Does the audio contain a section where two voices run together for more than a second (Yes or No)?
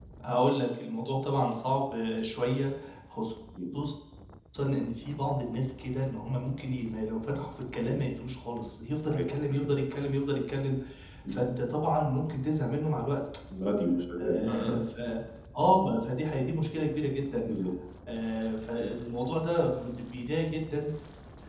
No